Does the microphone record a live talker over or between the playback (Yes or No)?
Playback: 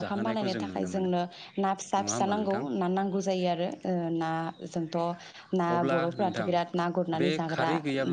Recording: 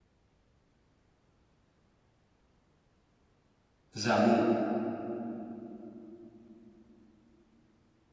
Yes